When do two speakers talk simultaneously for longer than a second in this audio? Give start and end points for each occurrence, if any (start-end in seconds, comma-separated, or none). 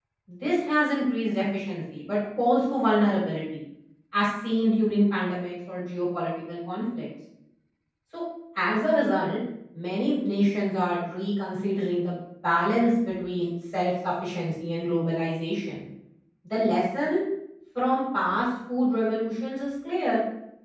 none